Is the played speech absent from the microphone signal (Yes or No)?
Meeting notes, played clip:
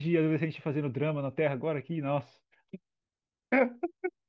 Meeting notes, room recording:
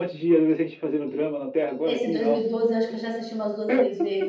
No